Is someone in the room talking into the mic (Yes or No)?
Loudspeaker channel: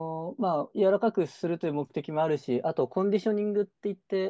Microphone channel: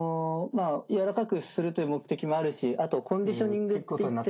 Yes